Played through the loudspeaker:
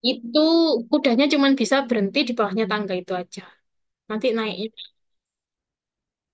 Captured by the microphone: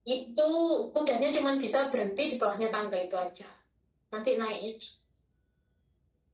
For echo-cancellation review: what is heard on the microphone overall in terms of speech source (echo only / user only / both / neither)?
echo only